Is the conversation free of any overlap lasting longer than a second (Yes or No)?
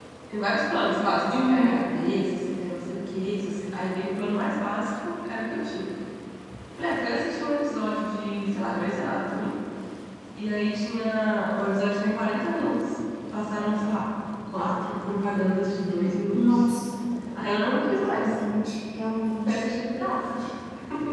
Yes